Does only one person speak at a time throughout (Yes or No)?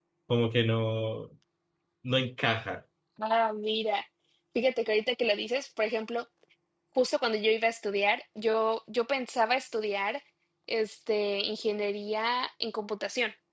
Yes